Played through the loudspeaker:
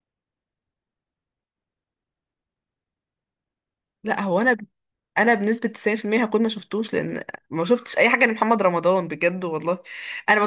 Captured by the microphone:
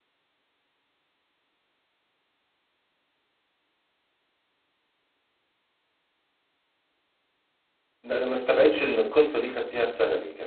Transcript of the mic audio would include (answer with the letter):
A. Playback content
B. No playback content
B